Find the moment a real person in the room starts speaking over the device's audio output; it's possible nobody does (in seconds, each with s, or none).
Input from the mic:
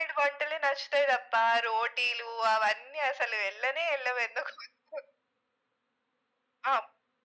none